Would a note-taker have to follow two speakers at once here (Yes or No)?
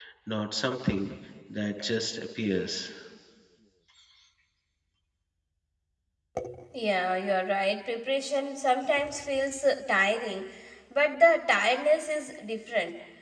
No